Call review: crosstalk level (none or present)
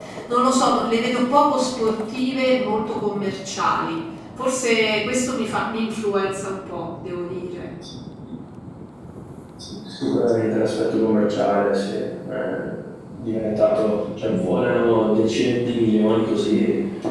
none